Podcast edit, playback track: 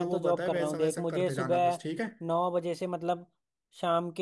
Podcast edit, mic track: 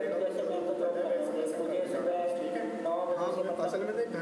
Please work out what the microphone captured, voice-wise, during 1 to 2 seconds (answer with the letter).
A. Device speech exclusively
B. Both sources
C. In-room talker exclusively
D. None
A